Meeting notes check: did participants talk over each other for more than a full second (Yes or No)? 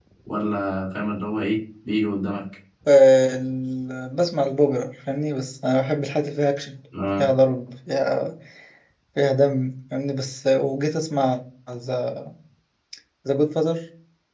No